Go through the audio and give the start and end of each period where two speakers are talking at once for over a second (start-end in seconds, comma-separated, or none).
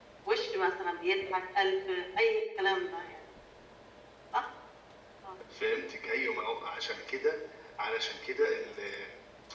none